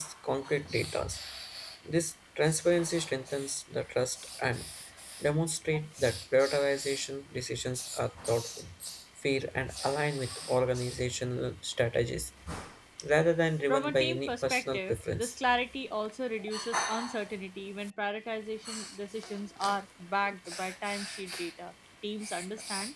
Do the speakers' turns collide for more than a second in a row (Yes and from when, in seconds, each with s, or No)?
Yes, from 13.7 s